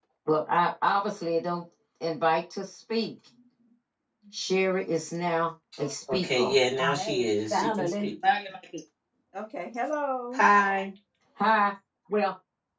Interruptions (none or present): present